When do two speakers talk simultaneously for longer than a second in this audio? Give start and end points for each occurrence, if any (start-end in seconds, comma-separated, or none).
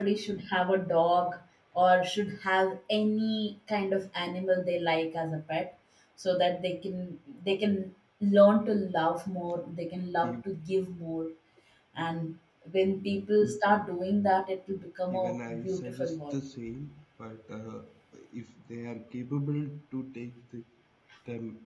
15.1-16.4